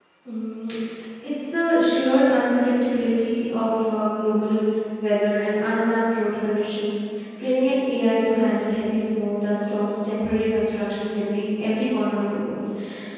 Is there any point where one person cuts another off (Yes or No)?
No